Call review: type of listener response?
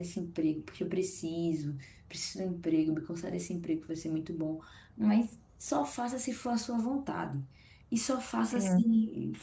listening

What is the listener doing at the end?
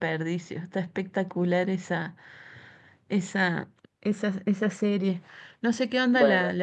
listening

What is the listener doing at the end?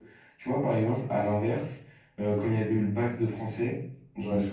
listening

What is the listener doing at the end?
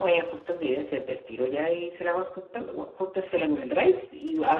listening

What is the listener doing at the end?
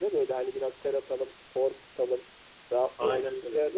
listening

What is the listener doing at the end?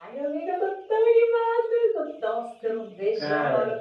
listening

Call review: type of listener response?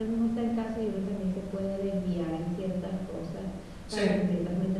listening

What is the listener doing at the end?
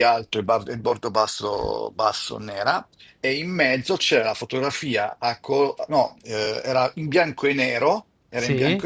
listening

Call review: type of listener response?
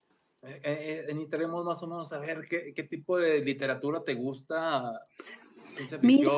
listening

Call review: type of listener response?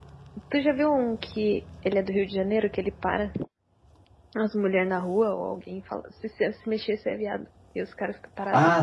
taking over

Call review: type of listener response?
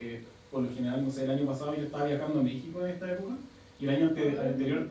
listening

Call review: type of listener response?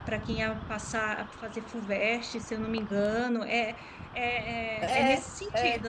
listening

